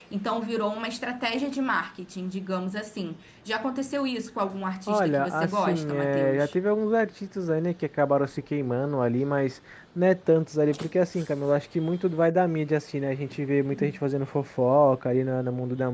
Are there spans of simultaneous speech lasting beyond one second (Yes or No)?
Yes